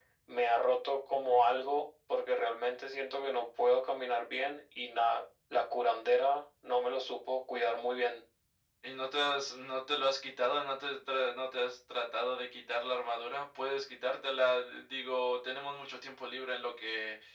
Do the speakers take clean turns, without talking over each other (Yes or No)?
Yes